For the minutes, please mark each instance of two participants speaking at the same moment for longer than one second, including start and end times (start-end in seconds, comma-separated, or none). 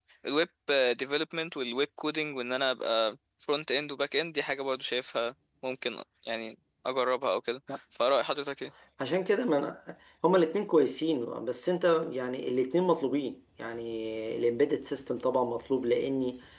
none